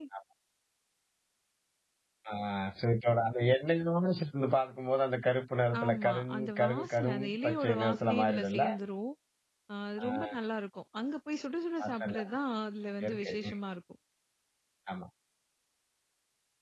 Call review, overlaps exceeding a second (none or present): present